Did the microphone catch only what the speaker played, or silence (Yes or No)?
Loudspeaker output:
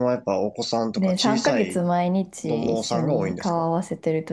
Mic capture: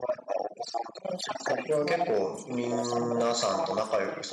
No